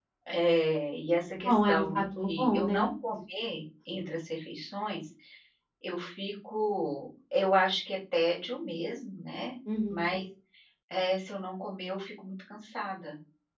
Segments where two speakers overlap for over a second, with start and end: 1.3-2.7

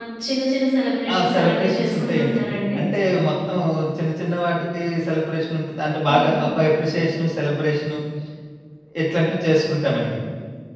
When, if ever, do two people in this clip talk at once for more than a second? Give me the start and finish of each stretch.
1.1-2.4

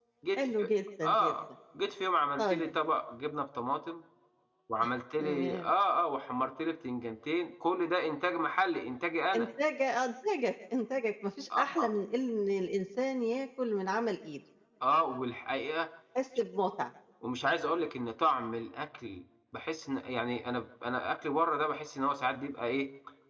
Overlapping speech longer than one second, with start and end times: none

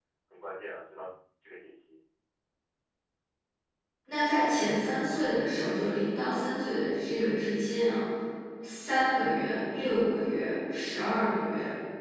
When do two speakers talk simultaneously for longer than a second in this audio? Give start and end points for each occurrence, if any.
none

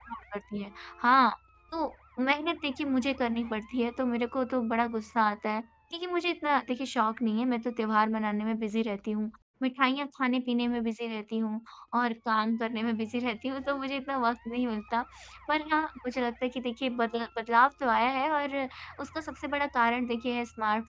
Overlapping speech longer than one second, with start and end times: none

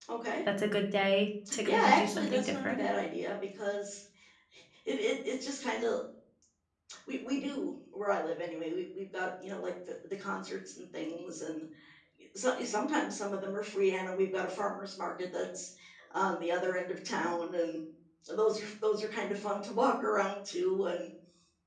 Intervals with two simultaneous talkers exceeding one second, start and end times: 1.6-2.9

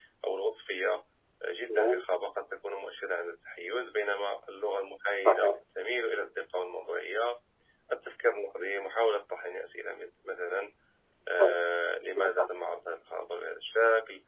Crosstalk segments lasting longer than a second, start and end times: none

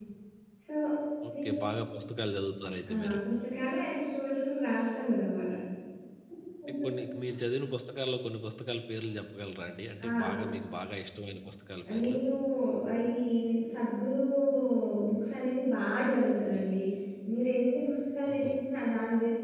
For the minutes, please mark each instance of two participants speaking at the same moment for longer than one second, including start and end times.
none

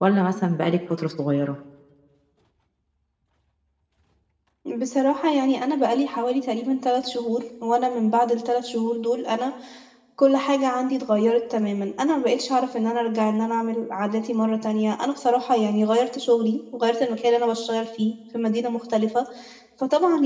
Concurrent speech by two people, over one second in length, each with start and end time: none

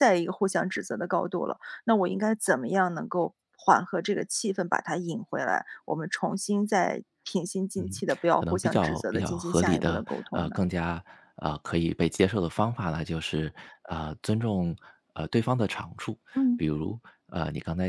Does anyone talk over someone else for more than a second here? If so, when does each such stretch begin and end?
8.4-10.6

